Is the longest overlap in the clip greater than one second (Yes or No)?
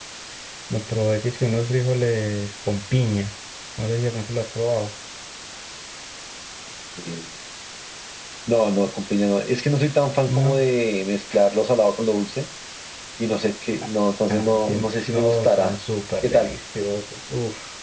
Yes